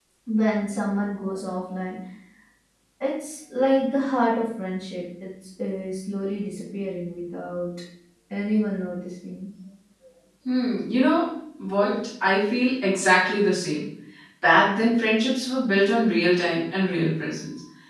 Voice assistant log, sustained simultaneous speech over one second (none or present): none